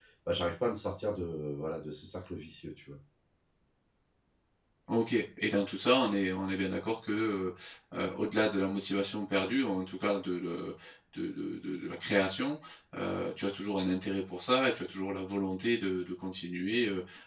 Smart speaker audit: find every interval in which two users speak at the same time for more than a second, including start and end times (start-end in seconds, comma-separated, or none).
none